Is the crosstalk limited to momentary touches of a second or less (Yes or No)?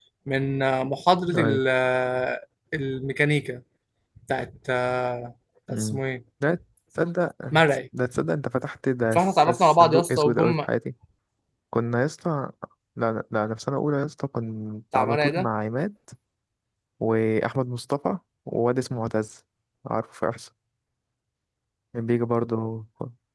No